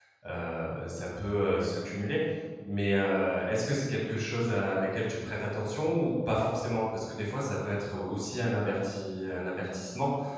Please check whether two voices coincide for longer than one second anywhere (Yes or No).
No